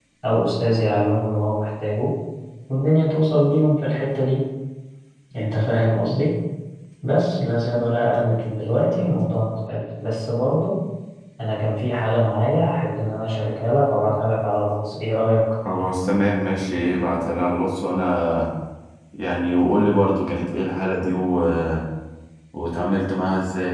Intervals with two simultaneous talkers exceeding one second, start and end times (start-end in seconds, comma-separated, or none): none